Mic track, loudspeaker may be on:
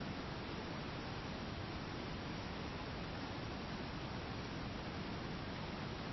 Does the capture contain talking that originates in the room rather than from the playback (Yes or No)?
No